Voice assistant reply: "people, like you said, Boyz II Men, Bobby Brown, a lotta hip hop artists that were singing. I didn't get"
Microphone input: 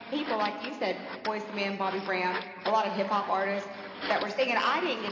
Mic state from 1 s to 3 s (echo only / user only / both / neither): echo only